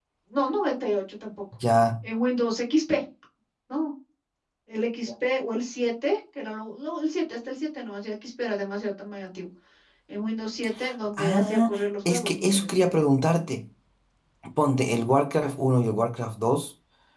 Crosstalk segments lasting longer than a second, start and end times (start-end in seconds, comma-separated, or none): 11.2-12.7